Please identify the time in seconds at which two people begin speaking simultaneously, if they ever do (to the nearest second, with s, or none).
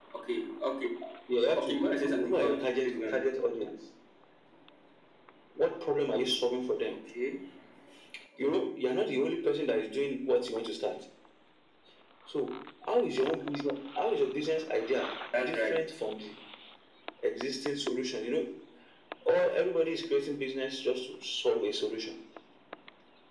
2 s